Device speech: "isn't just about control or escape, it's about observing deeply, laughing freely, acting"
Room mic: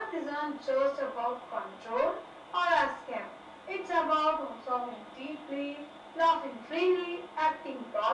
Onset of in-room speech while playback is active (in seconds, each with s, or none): none